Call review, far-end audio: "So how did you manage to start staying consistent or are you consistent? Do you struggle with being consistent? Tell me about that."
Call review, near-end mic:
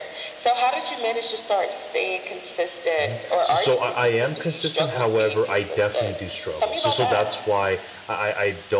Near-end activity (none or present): present